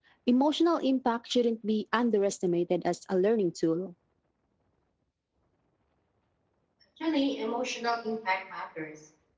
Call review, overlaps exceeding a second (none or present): none